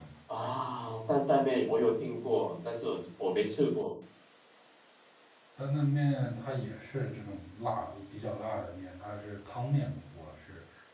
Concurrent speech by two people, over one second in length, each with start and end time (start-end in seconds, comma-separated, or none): none